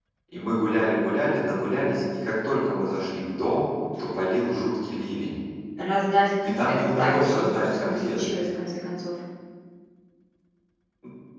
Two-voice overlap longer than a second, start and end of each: 6.4-8.3

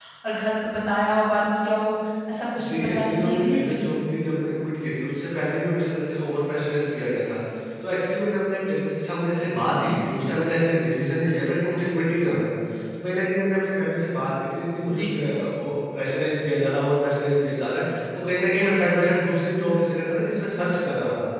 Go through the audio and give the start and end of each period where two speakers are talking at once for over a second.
2.6-3.8

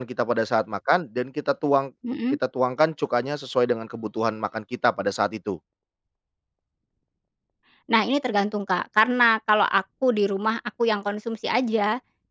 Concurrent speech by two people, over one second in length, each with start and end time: none

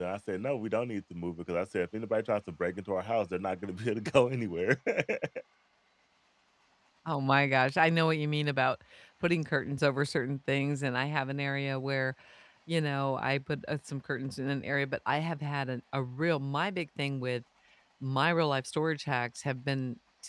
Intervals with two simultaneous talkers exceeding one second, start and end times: none

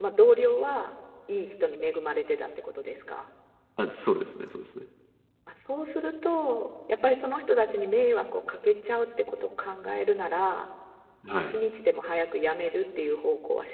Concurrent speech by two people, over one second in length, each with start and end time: none

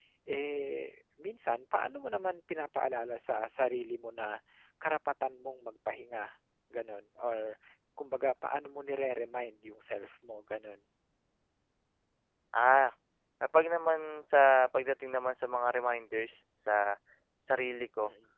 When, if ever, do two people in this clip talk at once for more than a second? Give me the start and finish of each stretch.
none

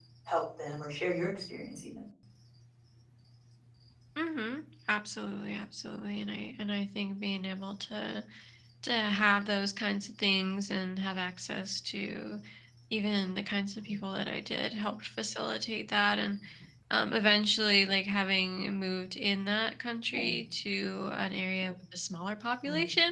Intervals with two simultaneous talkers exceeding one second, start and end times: none

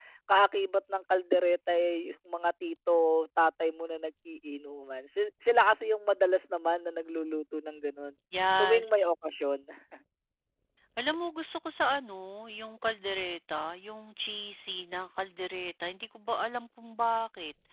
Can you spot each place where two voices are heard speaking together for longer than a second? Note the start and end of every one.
none

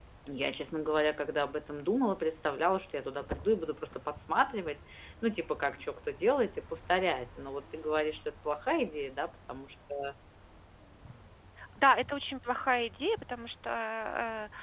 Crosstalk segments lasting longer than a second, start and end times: none

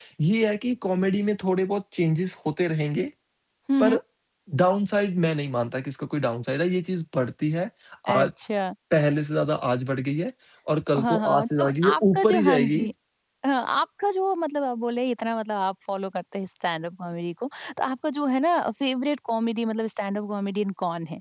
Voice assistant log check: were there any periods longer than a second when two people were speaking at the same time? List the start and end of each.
11.0-12.9

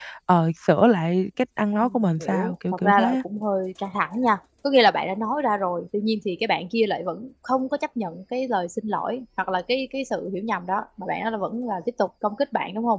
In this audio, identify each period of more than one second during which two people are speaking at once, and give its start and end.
1.8-3.2

